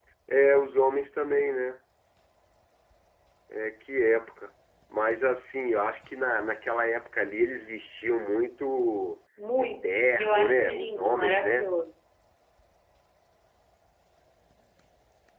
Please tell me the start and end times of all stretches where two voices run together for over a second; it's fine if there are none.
9.6-11.7

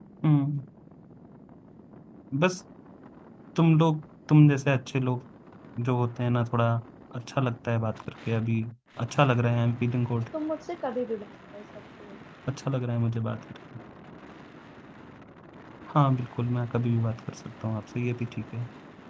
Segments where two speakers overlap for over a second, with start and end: none

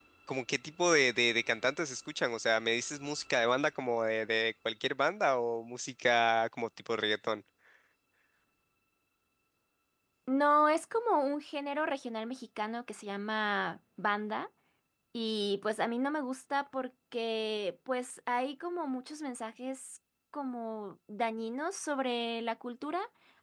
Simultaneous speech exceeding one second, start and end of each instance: none

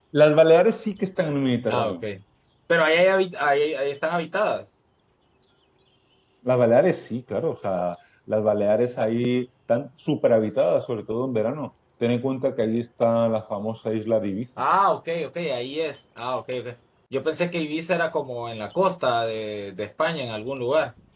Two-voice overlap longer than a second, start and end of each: none

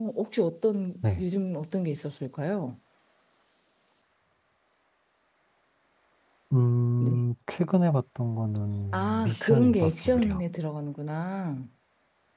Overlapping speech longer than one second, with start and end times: 8.9-10.4

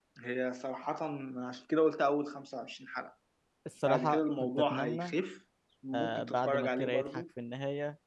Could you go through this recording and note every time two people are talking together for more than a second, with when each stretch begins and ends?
3.8-5.1, 5.9-7.2

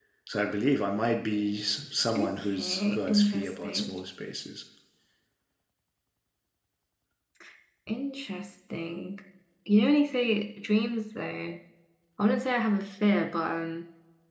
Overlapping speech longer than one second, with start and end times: 2.2-4.0

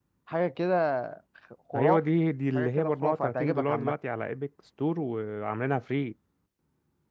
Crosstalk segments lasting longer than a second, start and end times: 2.5-3.9

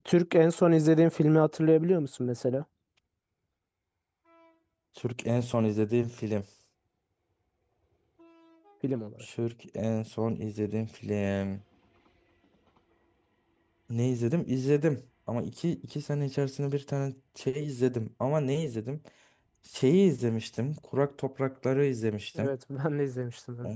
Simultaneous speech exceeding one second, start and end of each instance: none

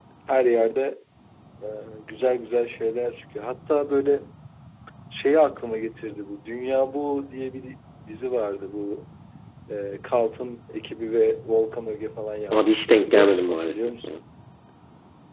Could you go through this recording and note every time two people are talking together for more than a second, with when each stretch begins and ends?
12.5-14.1

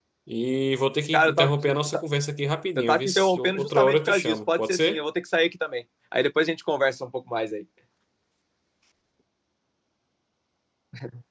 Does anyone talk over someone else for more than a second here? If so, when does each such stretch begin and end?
2.8-5.0

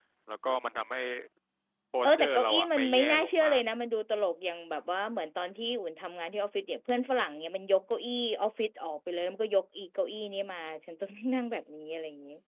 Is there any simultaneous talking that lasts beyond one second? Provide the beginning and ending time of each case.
2.0-3.6

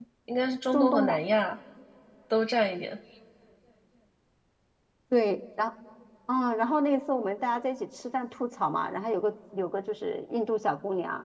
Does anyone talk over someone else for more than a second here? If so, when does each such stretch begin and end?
none

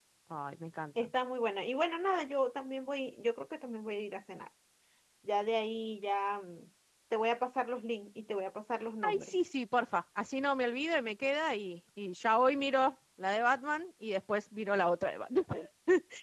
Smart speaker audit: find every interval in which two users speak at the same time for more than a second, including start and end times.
none

